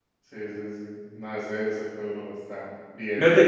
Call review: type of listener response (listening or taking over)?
taking over